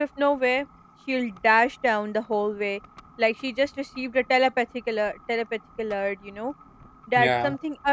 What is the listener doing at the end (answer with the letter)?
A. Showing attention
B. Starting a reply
A